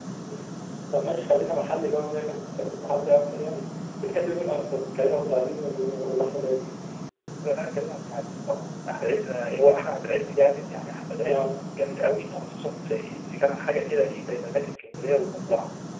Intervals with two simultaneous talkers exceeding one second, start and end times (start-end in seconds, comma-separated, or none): none